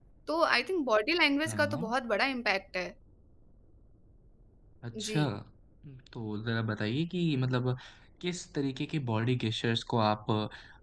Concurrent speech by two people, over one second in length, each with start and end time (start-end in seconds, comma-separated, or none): none